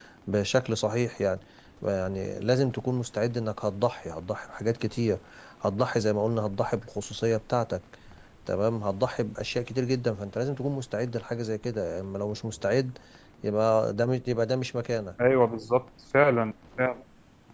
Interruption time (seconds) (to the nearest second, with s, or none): none